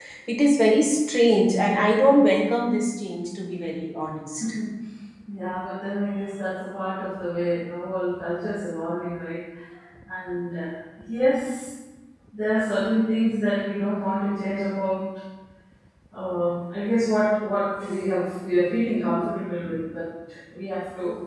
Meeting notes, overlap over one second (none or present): none